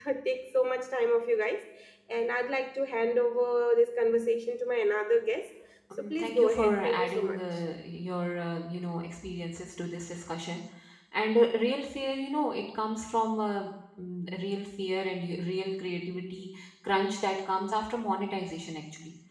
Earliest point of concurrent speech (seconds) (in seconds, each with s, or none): 5.9 s